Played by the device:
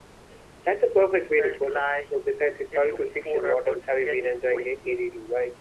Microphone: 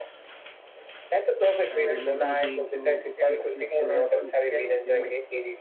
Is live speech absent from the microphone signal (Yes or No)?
No